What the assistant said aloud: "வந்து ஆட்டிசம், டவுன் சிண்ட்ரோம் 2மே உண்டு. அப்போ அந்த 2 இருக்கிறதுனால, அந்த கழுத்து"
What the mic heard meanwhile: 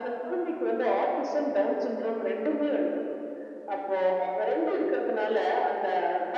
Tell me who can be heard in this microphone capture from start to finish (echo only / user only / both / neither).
echo only